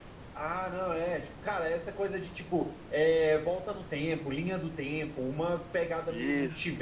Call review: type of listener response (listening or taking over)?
listening